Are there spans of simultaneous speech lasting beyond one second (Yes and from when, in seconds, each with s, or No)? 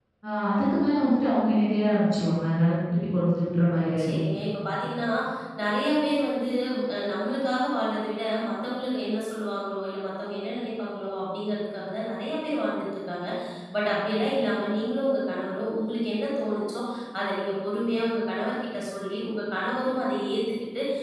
No